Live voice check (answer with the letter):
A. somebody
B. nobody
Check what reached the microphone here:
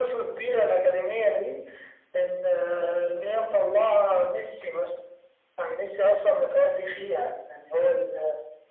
B